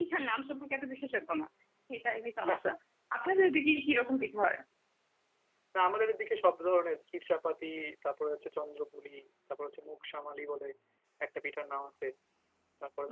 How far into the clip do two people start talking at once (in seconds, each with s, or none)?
none